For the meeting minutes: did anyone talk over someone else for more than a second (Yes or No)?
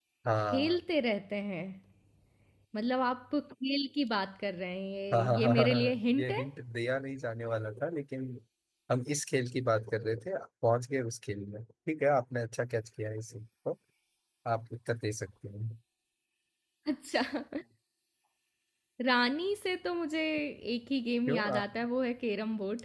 Yes